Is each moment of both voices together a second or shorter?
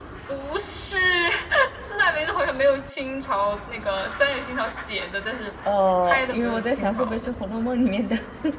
No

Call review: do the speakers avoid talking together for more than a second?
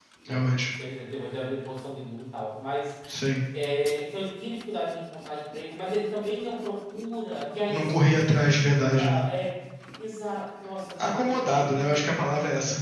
No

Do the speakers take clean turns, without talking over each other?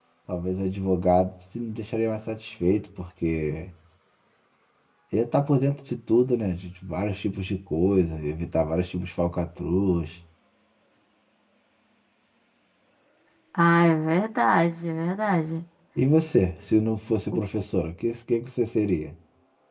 Yes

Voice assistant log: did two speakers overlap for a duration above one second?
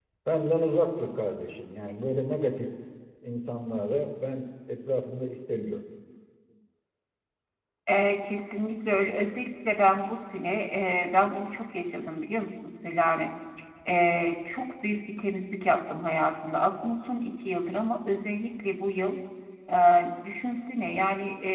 No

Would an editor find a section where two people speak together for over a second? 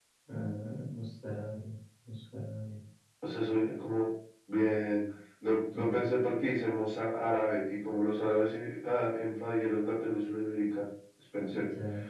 No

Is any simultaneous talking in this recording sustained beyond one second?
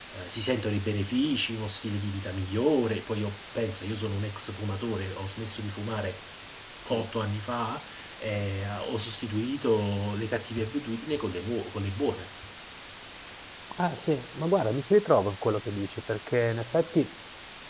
No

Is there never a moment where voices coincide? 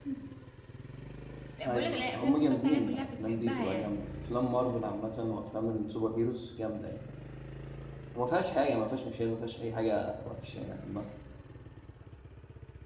No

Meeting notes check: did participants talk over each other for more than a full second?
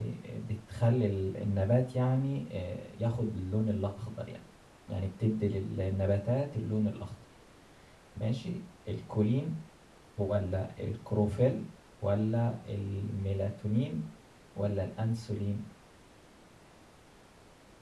No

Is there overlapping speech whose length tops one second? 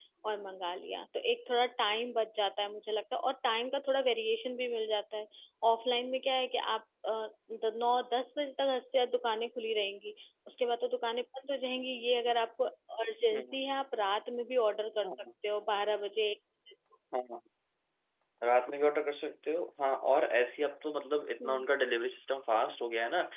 No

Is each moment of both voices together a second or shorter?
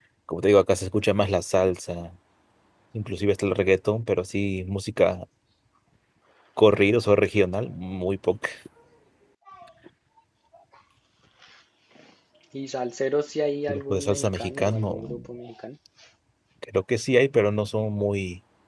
No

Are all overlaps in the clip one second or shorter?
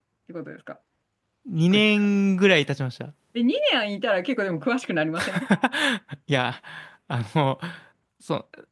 Yes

